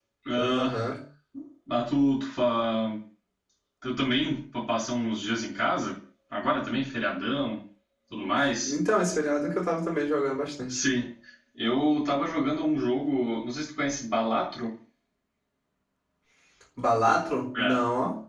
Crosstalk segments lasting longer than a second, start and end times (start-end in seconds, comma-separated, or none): none